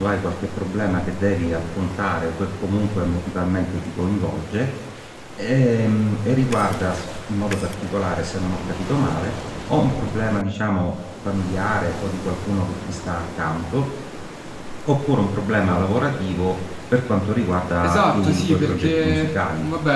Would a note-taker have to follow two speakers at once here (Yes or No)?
Yes